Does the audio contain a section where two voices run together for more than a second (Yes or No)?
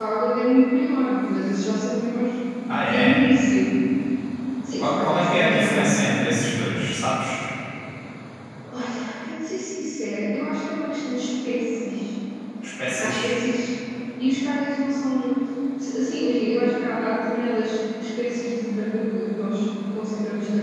Yes